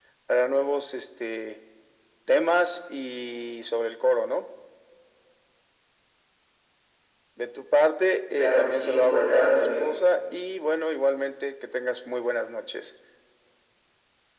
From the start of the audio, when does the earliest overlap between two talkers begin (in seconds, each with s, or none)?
8.3 s